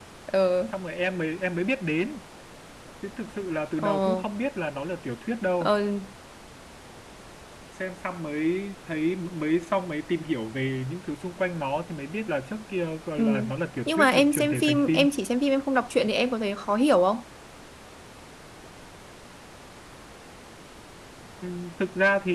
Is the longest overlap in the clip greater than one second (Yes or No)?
Yes